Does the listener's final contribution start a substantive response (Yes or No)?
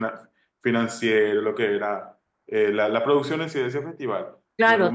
Yes